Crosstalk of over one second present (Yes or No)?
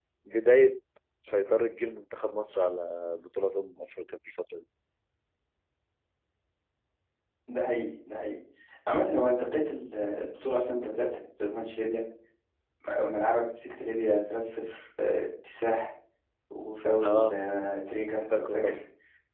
No